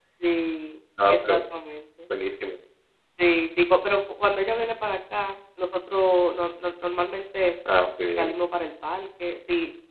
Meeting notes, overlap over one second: none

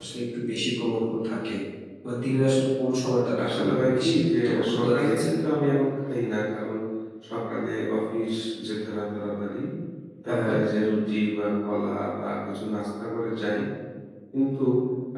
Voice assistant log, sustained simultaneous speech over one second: present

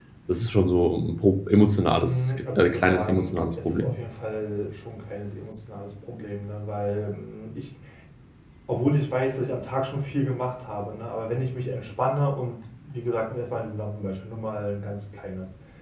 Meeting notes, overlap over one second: present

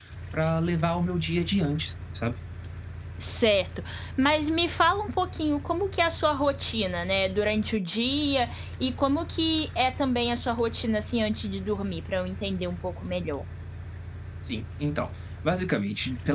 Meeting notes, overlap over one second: none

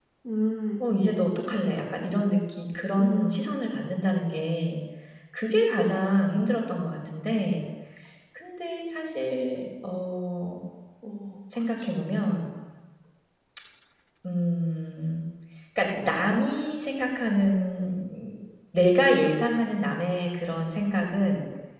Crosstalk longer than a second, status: none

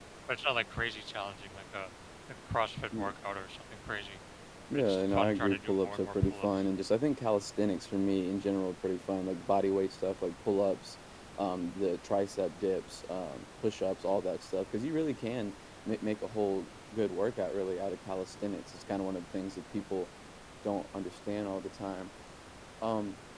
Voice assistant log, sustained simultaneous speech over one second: present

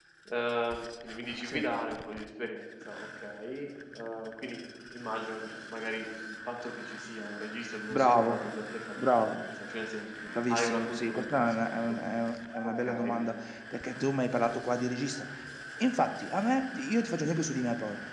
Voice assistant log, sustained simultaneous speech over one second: present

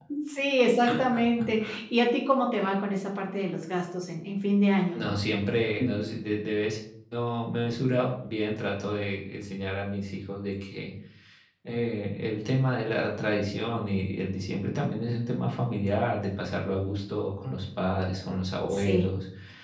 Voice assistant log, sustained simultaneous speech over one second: none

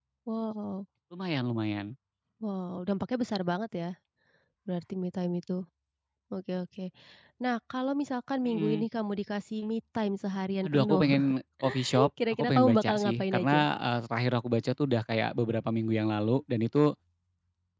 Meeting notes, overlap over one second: present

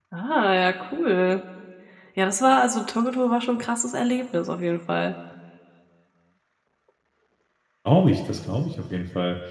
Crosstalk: none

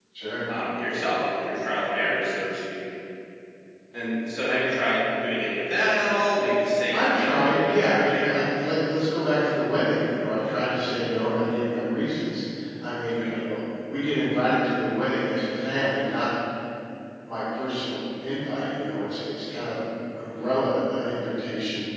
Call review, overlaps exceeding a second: present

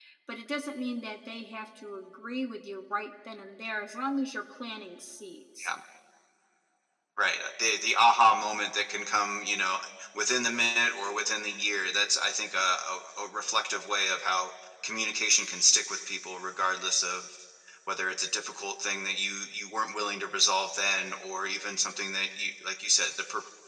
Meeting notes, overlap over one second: none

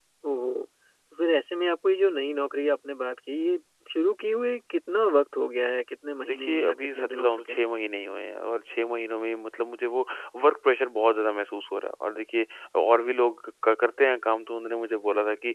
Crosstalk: present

